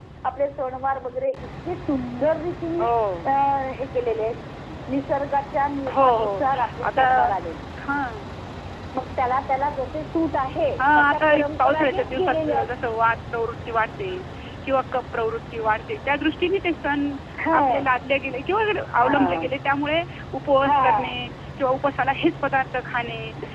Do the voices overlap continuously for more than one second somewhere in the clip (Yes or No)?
Yes